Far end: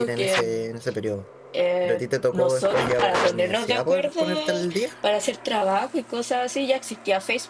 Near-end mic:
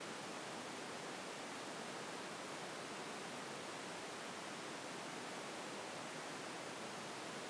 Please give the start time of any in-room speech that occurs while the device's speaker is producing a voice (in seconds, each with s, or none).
none